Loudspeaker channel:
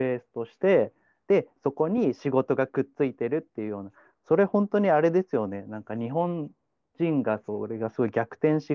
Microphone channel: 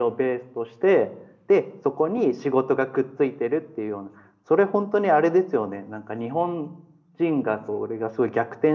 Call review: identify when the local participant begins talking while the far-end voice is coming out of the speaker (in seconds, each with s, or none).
none